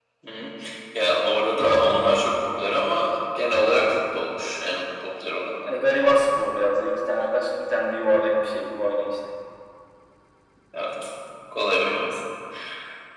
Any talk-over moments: No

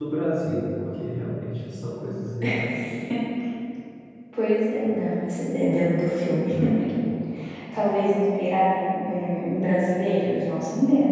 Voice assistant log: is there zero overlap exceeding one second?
Yes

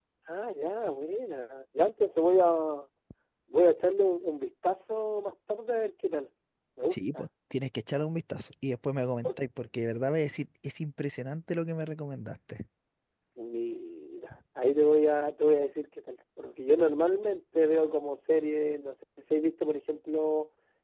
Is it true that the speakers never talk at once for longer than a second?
Yes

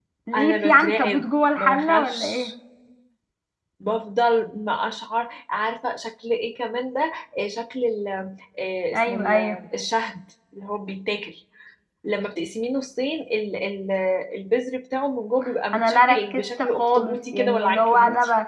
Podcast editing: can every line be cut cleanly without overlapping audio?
No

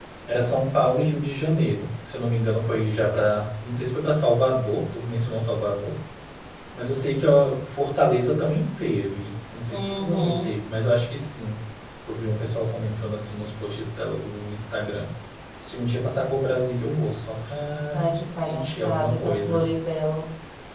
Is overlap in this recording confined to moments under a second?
No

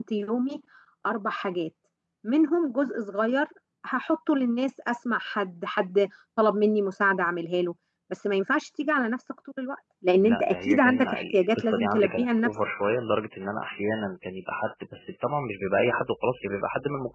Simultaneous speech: Yes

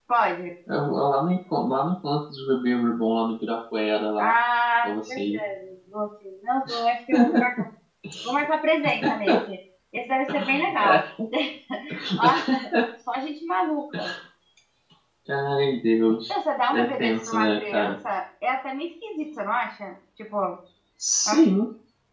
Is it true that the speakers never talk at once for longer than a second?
No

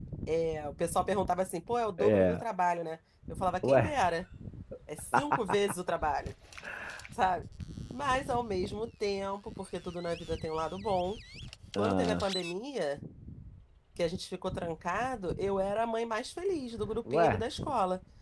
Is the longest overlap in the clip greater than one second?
No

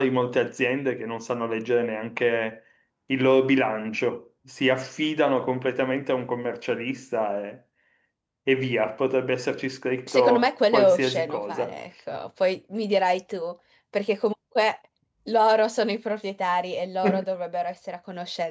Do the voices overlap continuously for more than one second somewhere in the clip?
Yes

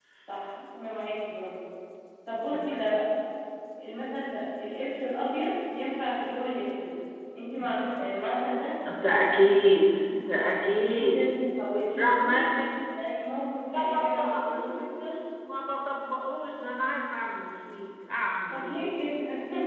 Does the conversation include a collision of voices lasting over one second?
Yes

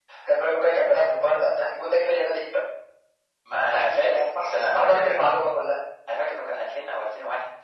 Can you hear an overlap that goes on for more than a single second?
Yes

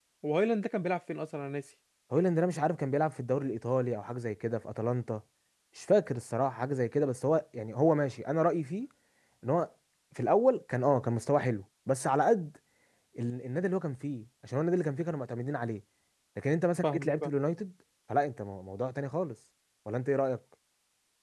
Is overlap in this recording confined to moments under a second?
Yes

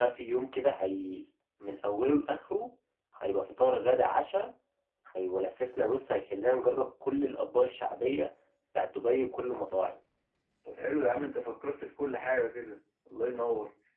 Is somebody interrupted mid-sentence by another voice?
No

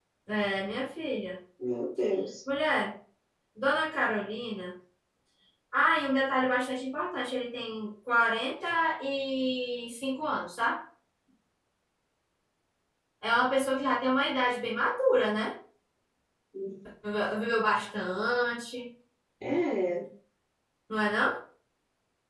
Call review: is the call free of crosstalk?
Yes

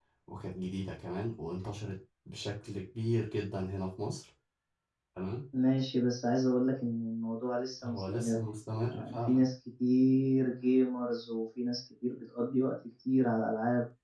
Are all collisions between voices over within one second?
Yes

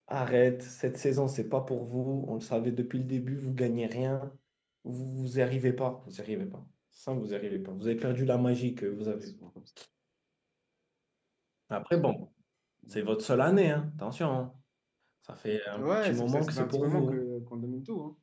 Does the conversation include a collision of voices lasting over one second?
Yes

